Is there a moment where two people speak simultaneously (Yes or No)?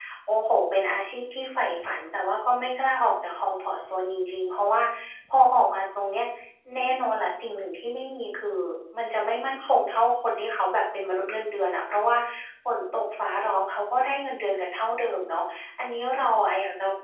No